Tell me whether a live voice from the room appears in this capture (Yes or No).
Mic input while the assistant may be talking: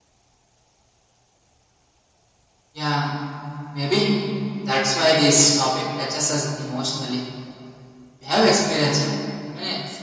No